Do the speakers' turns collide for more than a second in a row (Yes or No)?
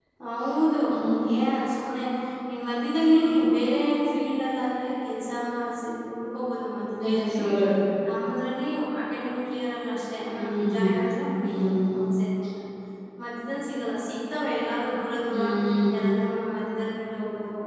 No